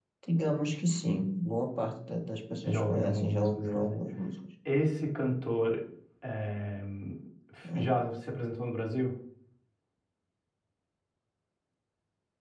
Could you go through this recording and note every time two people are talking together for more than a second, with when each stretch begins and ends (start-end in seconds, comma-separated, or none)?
2.6-4.0